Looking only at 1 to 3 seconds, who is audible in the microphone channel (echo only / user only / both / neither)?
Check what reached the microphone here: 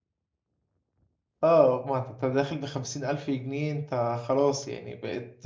user only